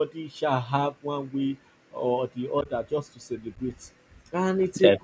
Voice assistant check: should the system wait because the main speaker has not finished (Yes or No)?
Yes